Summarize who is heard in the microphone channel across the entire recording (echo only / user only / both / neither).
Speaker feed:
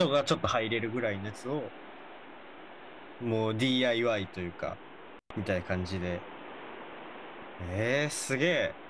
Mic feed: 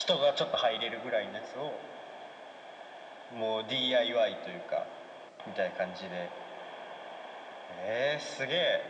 echo only